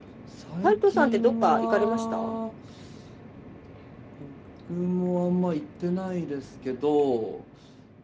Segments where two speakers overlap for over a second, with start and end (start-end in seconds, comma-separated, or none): 0.6-2.4